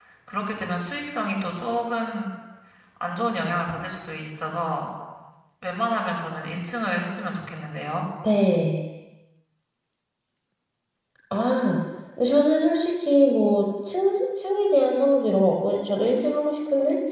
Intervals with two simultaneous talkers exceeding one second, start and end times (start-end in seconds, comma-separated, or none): none